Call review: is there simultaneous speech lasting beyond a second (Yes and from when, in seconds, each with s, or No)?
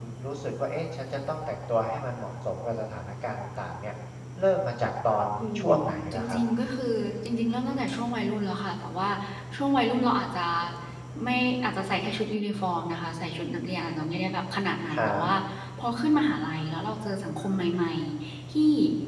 No